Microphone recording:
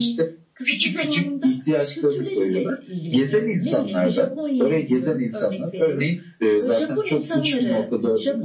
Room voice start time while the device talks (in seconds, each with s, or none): none